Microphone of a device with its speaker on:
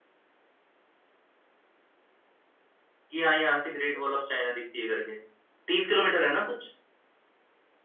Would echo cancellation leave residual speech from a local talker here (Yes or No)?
Yes